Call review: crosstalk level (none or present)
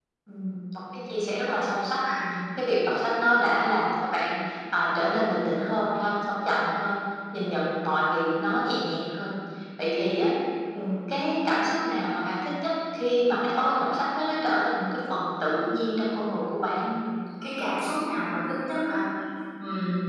none